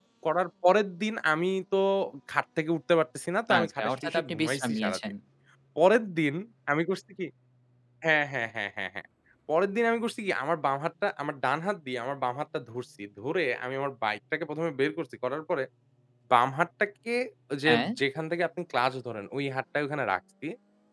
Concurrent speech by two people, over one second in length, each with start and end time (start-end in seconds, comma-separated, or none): 3.6-5.0